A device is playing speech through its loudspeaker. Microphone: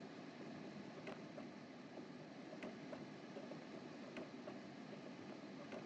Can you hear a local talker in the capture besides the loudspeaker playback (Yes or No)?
No